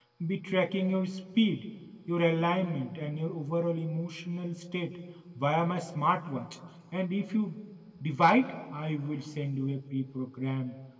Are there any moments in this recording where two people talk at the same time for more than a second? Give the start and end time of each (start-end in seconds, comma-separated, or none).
none